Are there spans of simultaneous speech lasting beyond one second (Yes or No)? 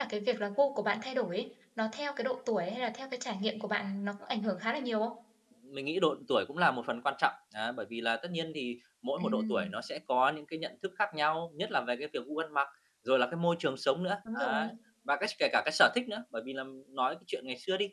No